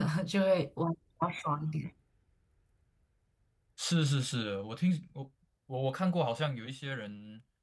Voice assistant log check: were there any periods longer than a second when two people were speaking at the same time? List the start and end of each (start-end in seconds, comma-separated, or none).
none